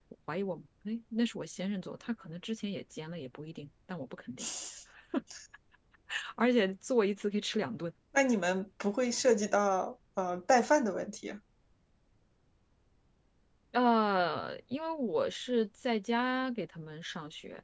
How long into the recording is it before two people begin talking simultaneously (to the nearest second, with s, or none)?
none